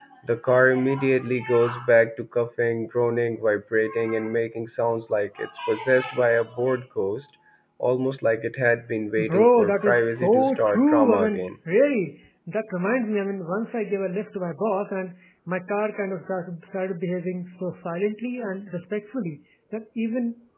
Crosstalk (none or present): present